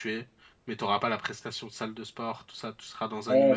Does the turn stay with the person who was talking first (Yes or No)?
No